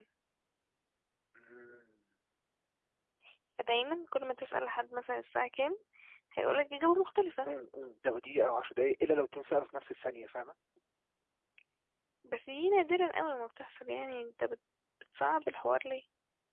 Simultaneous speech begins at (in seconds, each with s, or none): none